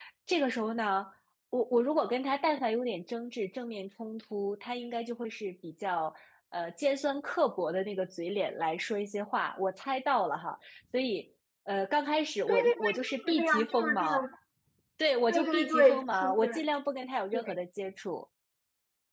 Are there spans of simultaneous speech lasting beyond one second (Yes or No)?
Yes